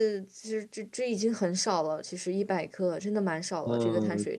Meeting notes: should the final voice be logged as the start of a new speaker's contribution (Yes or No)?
Yes